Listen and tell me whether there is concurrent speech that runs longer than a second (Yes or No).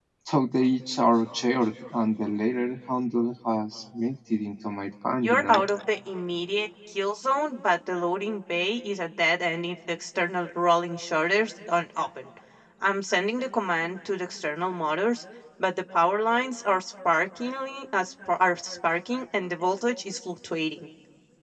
No